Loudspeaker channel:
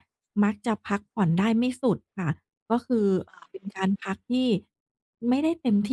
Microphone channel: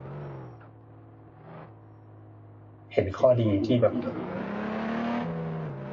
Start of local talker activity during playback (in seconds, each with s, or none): 2.9 s